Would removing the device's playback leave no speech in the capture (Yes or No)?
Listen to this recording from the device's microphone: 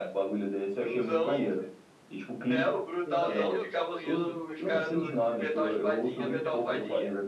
No